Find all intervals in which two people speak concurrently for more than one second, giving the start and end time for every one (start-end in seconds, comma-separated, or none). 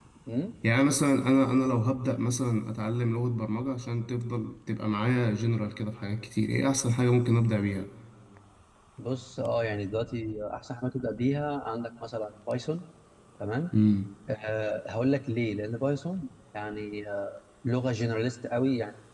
none